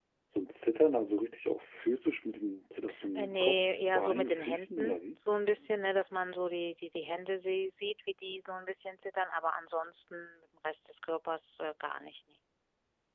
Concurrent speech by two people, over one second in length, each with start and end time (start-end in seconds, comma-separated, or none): 3.1-5.0